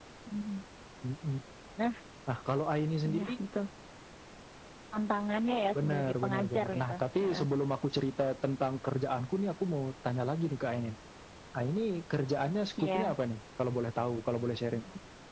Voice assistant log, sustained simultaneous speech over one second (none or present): present